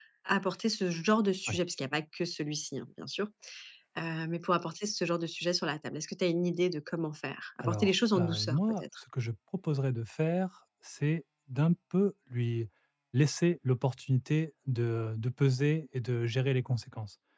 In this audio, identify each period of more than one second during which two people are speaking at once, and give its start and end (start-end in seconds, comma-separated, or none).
7.6-8.8